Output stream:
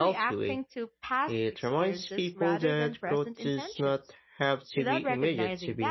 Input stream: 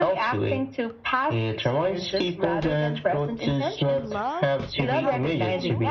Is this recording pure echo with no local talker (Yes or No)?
No